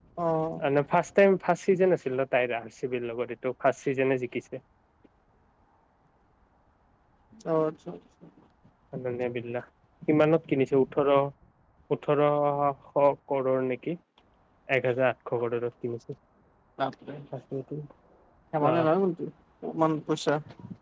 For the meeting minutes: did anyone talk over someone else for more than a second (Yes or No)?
No